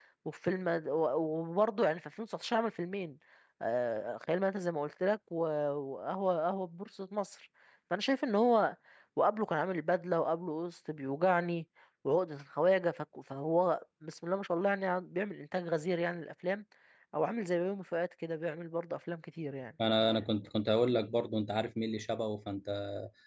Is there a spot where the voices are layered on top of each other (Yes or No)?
No